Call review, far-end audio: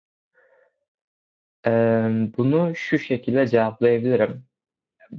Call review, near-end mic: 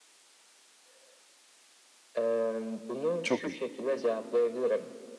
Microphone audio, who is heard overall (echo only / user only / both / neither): both